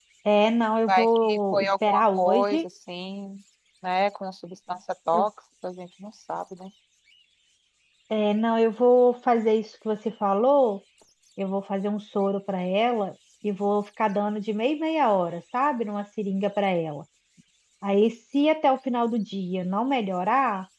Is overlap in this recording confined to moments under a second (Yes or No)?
No